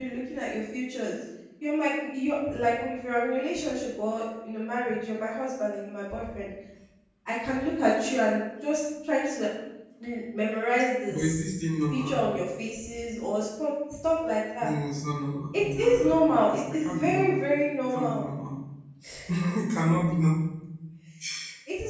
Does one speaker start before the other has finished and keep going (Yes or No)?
Yes